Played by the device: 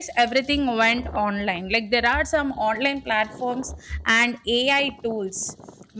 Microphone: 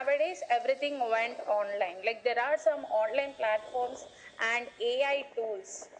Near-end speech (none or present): none